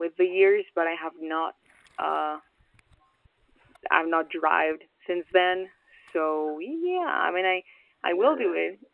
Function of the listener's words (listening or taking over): listening